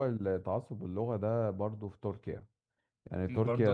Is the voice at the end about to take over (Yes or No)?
No